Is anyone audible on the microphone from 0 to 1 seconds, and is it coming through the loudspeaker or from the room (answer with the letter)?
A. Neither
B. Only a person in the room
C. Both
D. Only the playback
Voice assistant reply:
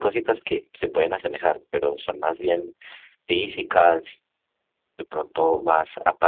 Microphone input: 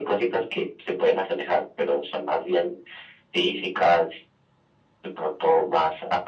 D